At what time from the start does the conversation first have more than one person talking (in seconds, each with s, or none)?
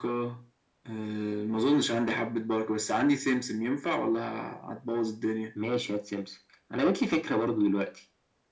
none